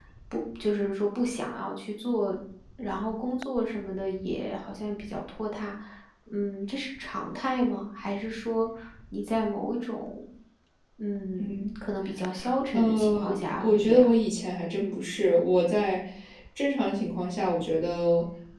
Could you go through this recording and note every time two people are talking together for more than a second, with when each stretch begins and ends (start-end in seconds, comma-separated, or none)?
12.7-14.0